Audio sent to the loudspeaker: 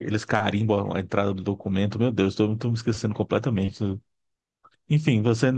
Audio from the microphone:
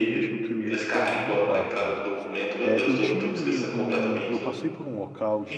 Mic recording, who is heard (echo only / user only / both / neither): both